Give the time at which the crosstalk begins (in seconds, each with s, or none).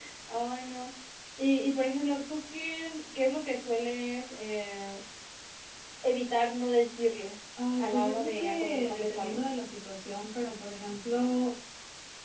7.6 s